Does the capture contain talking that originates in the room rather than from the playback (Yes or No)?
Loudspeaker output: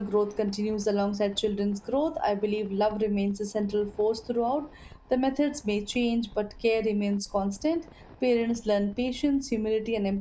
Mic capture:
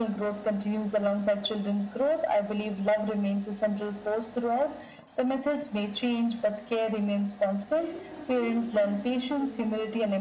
Yes